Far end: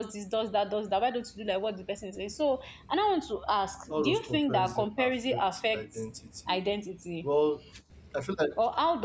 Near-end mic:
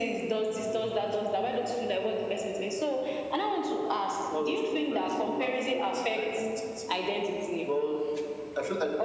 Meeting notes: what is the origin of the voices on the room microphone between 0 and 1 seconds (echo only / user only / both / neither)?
both